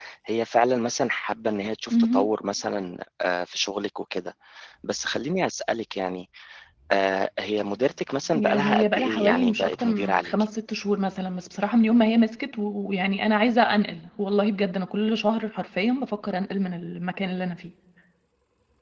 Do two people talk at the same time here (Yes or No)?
Yes